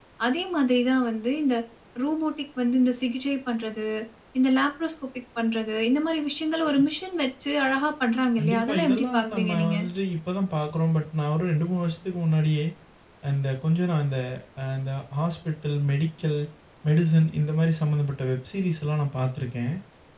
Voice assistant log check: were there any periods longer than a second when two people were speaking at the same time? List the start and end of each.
8.4-9.8

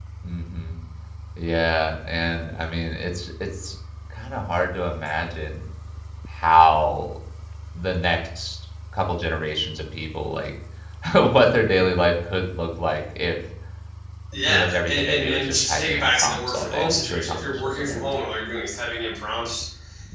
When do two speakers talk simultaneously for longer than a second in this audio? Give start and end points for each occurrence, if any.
14.5-18.1

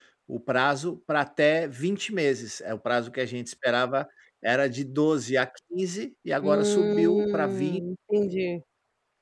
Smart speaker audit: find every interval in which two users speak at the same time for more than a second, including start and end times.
6.4-7.8

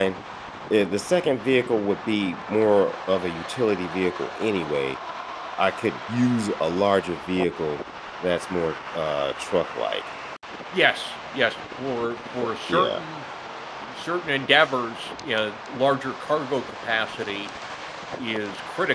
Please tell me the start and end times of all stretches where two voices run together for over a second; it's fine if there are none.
none

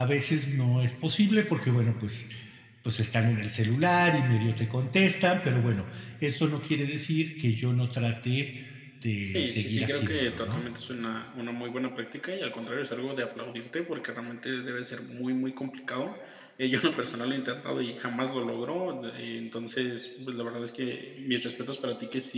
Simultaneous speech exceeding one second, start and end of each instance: 9.2-10.6

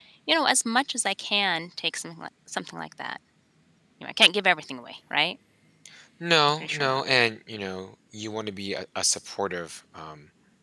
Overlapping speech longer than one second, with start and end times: none

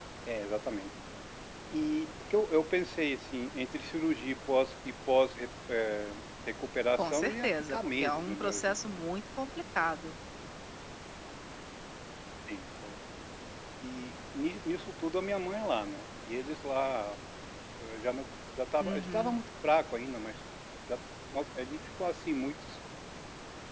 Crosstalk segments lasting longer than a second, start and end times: 7.0-8.8

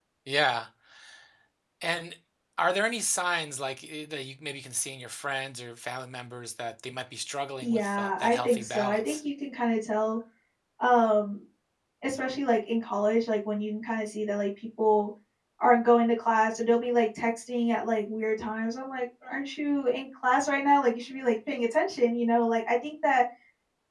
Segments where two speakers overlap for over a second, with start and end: 7.6-9.2

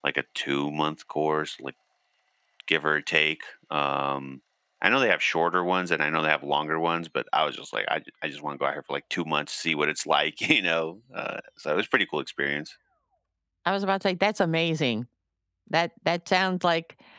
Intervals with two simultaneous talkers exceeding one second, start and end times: none

